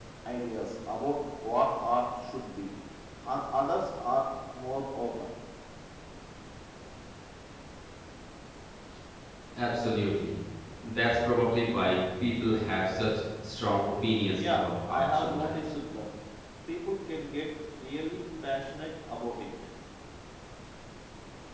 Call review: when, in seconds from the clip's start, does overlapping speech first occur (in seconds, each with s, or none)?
14.3 s